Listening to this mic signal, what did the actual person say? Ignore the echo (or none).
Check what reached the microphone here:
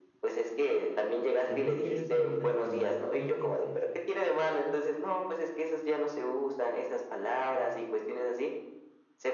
el no querer salir lastimado, creo que es eso,